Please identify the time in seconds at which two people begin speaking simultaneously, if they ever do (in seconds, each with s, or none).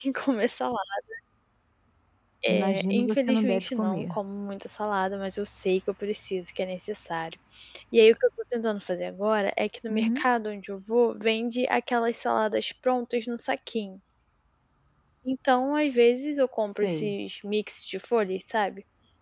2.5 s